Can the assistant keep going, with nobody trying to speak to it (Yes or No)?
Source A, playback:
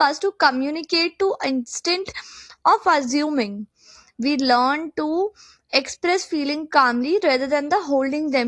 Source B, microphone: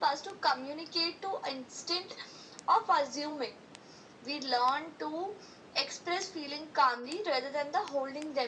Yes